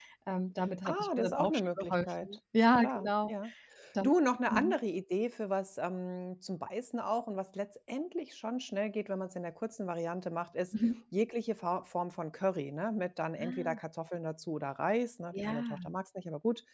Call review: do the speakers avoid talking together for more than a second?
No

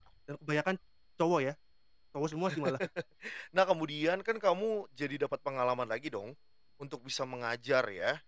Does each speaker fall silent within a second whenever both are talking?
Yes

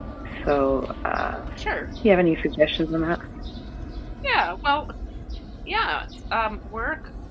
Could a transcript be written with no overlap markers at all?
Yes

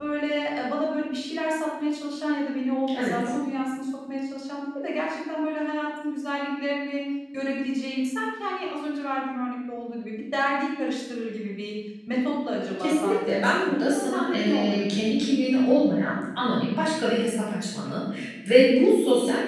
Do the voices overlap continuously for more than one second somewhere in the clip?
Yes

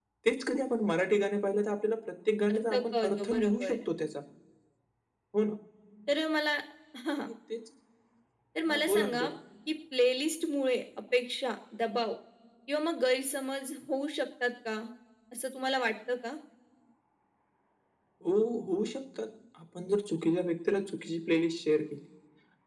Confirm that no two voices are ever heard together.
No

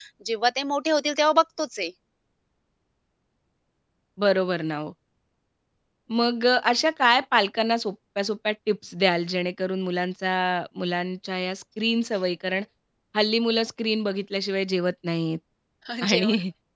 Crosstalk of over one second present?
No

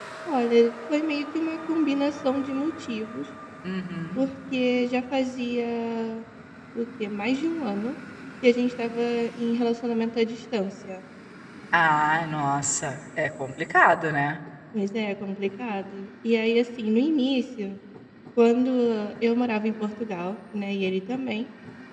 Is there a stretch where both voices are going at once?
No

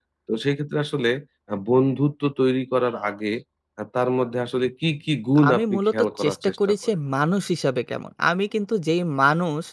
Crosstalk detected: Yes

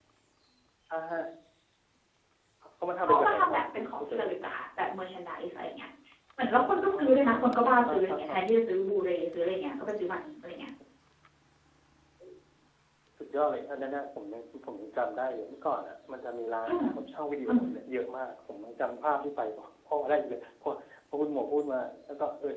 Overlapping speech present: Yes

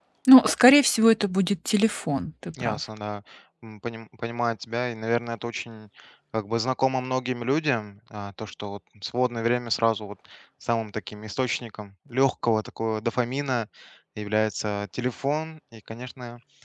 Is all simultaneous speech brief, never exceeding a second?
Yes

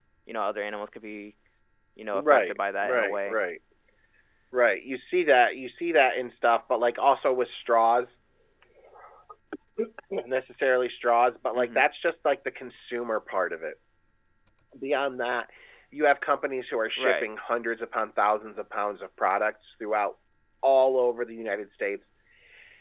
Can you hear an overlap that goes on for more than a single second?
Yes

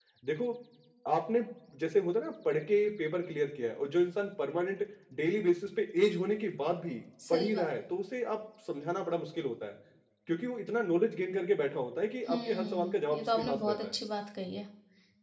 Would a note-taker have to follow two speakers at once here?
Yes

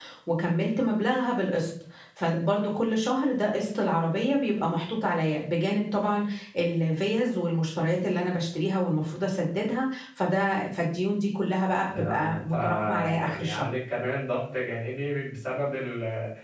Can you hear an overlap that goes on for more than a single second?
Yes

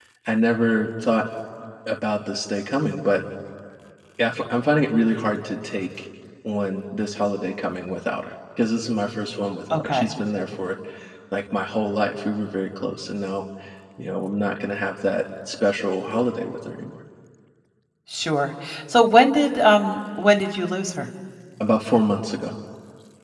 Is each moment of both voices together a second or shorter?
Yes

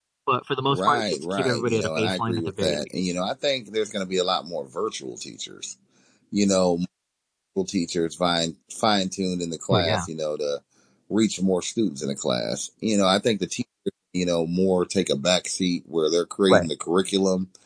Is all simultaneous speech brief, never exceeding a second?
No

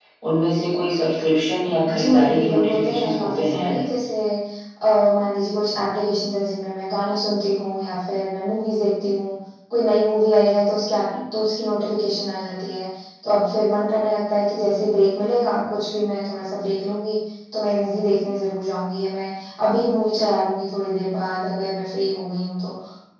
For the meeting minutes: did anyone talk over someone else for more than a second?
Yes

